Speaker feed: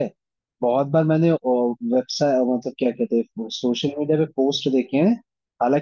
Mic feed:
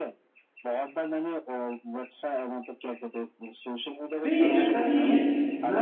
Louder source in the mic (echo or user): user